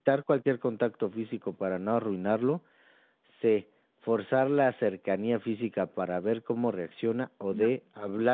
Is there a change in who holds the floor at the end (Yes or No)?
No